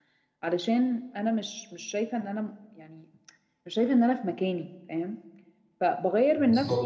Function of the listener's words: listening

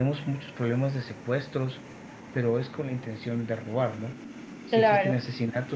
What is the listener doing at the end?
listening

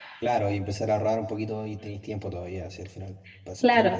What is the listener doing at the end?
taking over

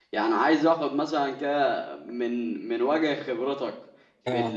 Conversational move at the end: listening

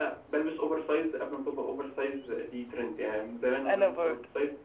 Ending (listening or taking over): listening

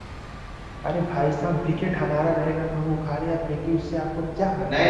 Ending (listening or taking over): taking over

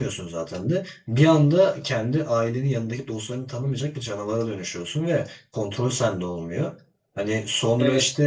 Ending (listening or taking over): listening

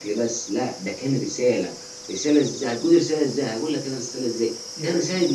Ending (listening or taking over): listening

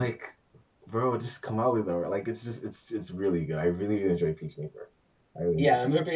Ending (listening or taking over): taking over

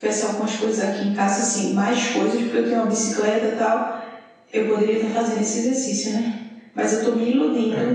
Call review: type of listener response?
listening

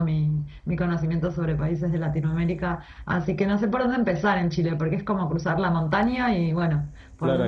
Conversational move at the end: taking over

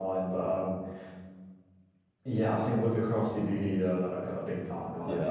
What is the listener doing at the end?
taking over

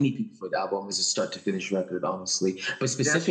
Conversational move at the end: listening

